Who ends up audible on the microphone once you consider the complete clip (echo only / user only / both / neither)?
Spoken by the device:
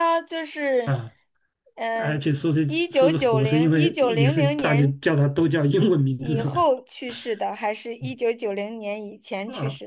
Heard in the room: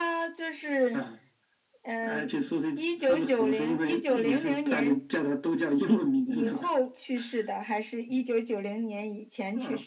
echo only